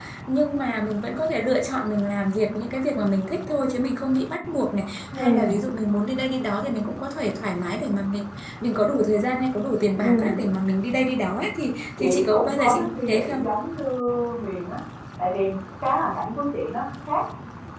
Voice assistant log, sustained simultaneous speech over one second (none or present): present